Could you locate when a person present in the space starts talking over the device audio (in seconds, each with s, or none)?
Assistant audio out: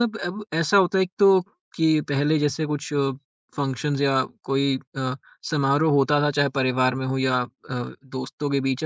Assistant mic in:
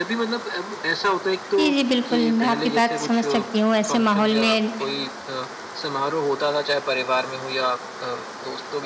1.6 s